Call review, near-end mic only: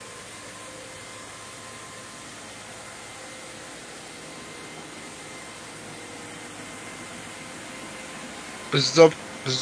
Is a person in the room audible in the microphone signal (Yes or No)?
Yes